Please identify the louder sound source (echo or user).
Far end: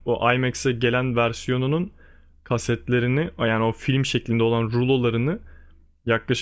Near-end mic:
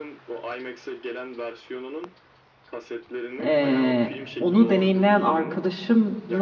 user